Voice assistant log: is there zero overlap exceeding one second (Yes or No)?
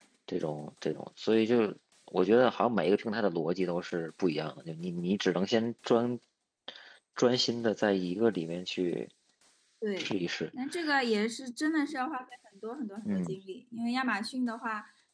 Yes